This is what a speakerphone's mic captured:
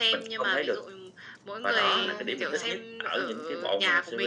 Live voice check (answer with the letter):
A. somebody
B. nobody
A